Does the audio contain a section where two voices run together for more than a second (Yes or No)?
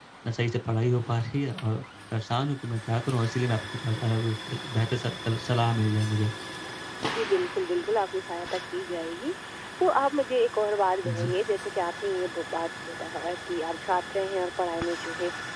No